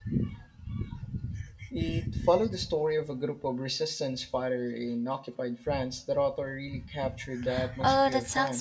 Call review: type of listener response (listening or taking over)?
taking over